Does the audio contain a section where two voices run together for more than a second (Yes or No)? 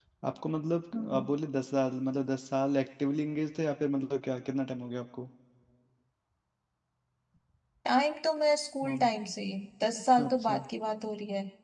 No